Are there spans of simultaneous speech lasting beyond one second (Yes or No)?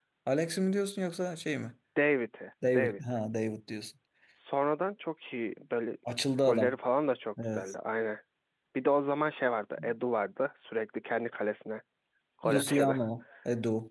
No